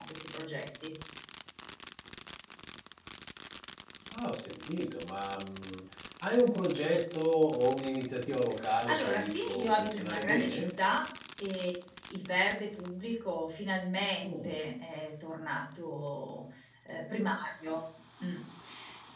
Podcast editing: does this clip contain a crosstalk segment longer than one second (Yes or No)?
Yes